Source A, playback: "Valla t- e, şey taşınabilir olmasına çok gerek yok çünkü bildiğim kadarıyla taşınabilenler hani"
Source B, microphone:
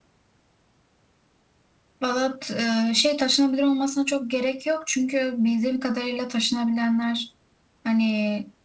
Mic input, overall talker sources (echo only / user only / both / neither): echo only